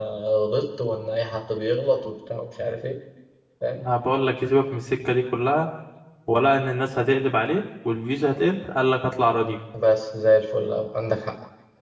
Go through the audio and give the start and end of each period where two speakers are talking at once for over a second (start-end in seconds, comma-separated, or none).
none